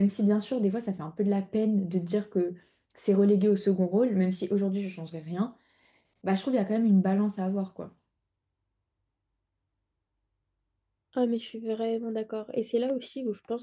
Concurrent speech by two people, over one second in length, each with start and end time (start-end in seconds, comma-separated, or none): none